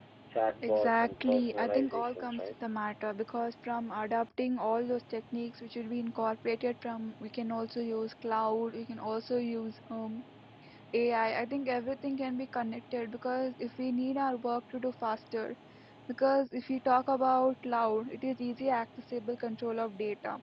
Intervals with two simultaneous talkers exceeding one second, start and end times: 0.6-2.5

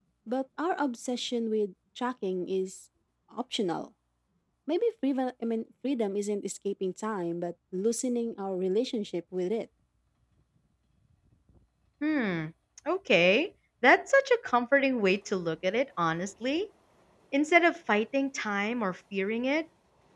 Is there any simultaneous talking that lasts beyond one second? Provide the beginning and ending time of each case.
none

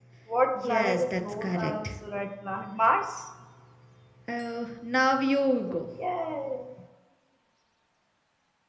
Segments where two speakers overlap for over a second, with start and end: 0.6-1.9

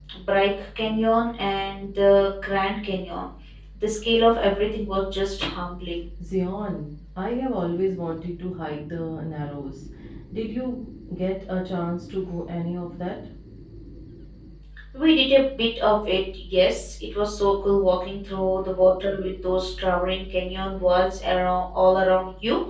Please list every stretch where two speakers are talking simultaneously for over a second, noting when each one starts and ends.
none

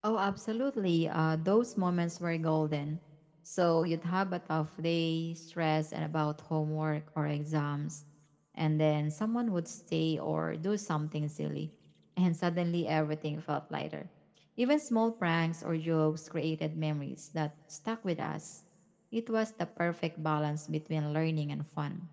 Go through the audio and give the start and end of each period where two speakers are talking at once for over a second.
none

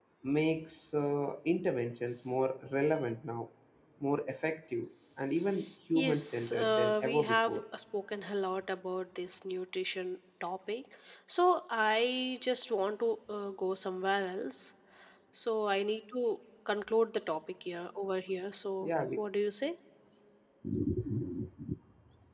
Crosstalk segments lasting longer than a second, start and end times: 5.9-7.5

